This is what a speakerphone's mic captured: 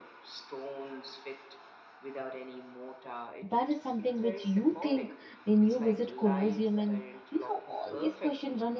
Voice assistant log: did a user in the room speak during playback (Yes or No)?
Yes